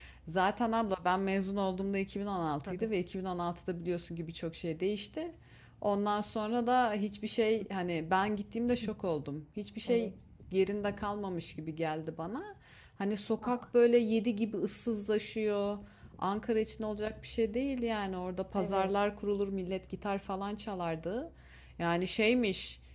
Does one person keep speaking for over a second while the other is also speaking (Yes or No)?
No